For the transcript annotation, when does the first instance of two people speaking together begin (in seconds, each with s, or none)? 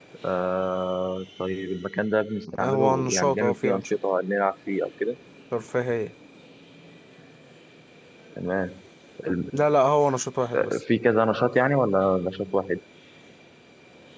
2.5 s